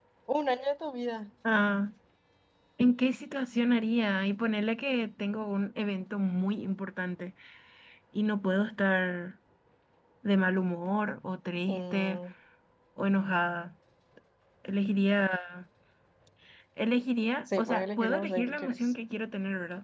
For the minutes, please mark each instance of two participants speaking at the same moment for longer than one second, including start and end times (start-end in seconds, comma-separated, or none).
17.6-18.8